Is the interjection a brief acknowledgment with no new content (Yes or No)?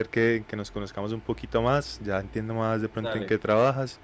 Yes